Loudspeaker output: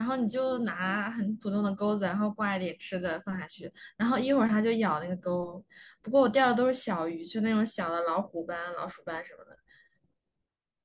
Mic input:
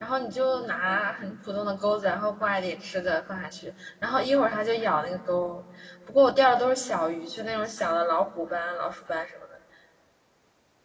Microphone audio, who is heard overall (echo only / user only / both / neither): echo only